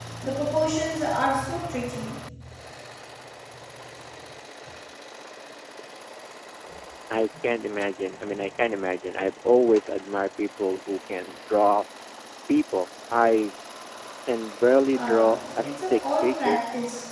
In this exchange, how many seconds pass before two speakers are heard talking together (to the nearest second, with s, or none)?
15 s